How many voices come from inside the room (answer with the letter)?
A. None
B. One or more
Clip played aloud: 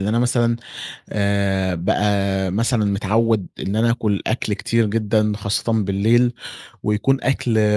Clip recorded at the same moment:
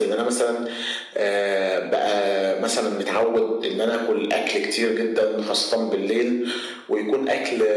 A